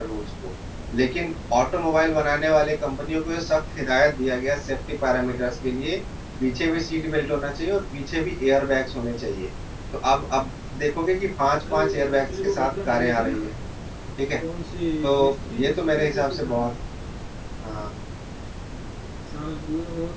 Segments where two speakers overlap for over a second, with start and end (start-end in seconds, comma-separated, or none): 11.7-13.3, 15.2-16.7